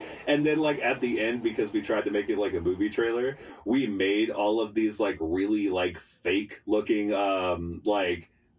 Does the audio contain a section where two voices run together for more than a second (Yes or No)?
No